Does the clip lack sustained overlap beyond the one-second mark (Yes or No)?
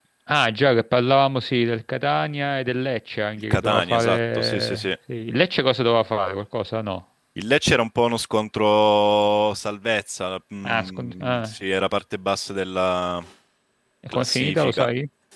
No